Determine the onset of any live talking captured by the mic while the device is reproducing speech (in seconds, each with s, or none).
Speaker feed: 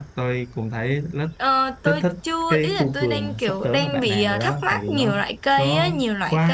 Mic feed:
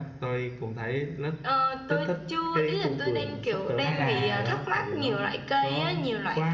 3.8 s